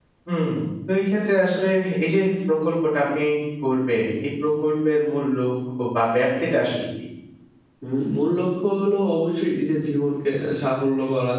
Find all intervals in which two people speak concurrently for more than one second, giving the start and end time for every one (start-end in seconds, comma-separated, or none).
none